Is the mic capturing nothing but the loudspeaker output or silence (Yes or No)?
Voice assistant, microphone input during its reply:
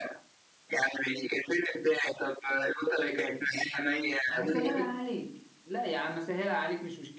No